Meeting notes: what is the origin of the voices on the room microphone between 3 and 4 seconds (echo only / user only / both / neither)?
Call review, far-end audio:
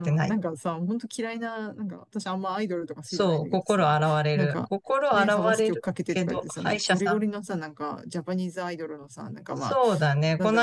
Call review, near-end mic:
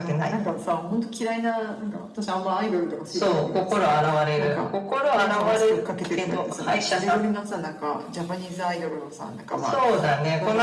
echo only